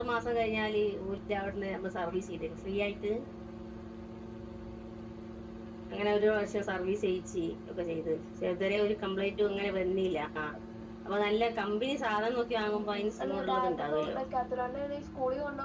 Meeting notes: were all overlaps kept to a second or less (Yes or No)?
No